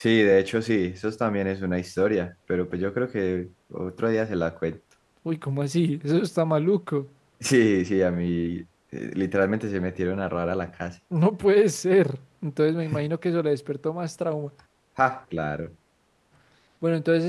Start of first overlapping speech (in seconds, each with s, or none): none